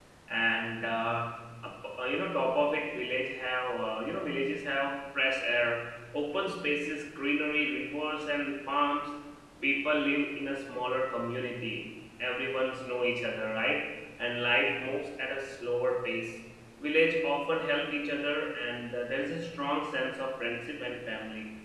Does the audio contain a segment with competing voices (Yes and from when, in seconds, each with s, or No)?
No